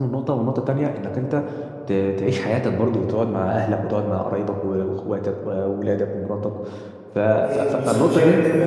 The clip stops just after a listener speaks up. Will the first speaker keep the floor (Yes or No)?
No